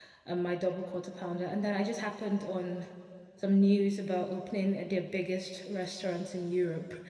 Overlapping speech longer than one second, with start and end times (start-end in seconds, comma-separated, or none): none